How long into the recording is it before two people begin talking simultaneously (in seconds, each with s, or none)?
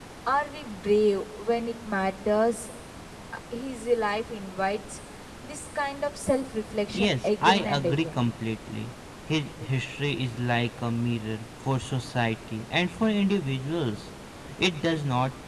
6.9 s